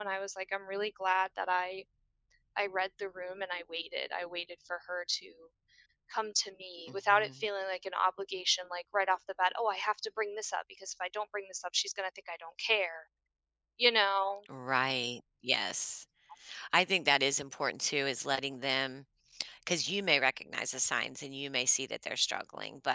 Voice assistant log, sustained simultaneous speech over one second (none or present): none